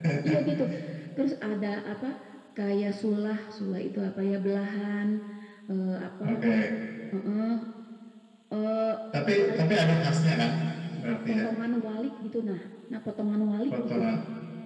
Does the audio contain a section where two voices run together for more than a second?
No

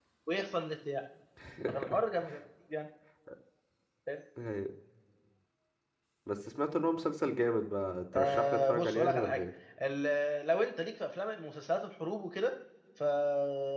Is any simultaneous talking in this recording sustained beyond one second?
Yes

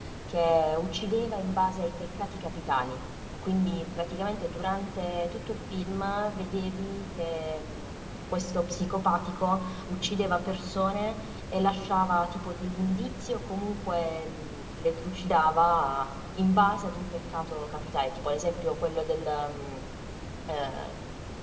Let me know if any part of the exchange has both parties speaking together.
No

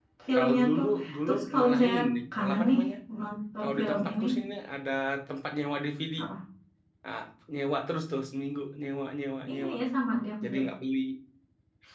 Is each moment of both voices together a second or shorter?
No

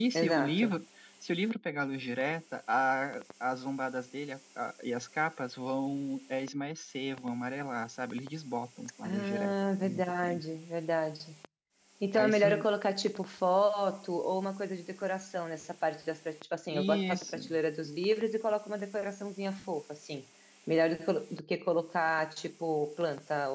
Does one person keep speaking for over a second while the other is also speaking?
Yes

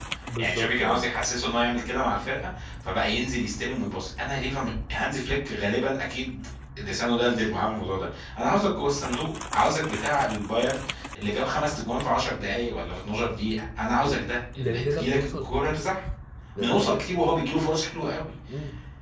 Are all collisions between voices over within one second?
No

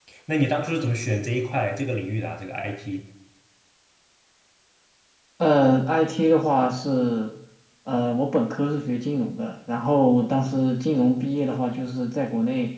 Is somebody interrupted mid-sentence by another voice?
No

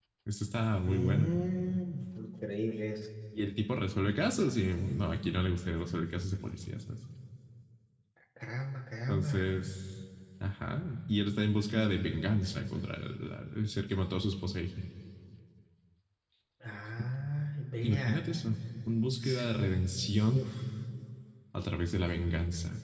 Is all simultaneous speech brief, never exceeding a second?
Yes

